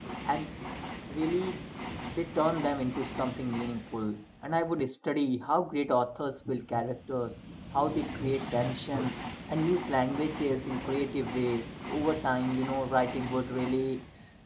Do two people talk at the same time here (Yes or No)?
No